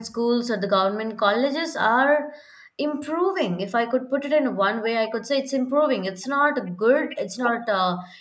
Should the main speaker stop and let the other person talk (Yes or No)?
No